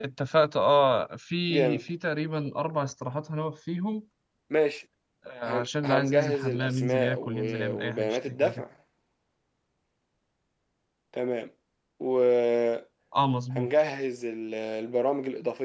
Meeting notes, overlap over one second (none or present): present